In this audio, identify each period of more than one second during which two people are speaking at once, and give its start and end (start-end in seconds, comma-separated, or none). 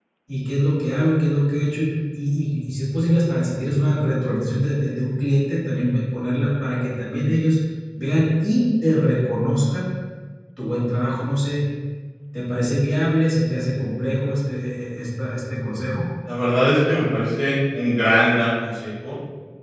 none